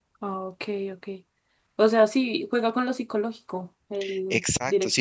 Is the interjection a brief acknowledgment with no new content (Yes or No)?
No